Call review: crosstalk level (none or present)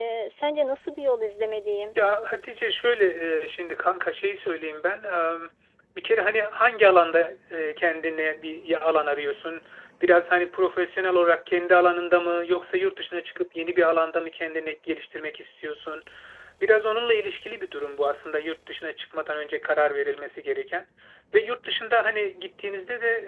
none